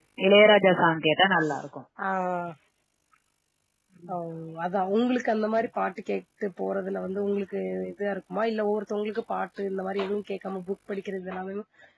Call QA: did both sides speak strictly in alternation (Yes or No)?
Yes